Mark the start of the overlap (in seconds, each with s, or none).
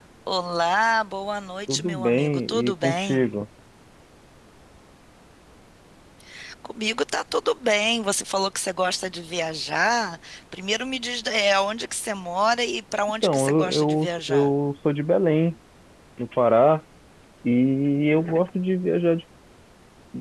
1.7 s